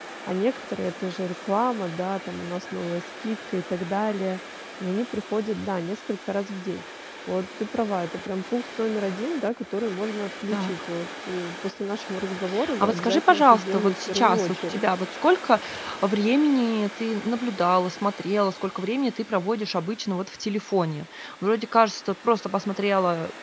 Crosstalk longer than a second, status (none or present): present